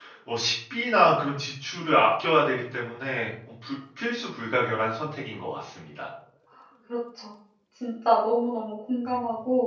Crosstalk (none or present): none